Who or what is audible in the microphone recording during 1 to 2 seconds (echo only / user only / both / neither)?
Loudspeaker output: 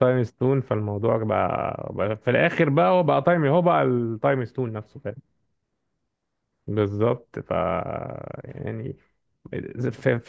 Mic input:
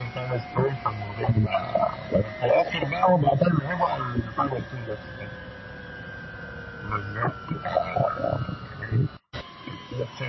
echo only